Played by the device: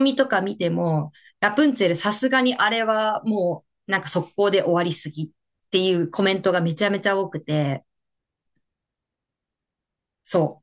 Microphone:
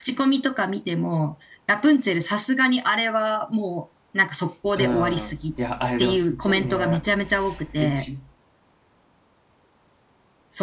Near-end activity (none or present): present